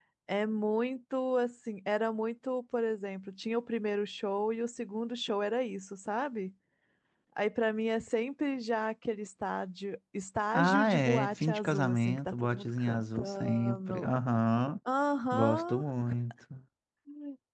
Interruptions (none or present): present